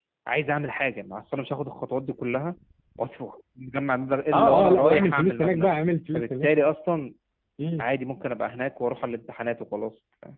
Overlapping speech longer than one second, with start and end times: 4.3-5.7

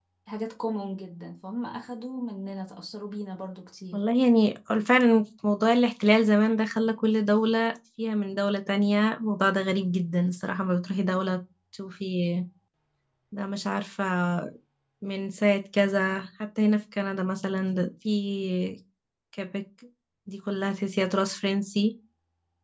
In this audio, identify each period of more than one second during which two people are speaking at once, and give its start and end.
none

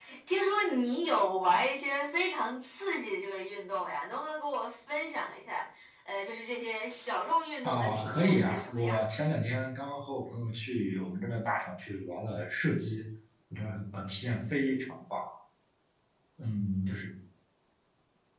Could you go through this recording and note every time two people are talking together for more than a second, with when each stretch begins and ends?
7.6-9.0

